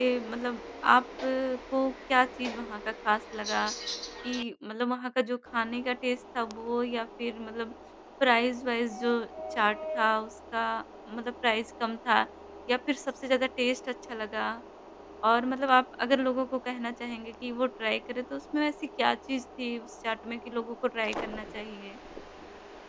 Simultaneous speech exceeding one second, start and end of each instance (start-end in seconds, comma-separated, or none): none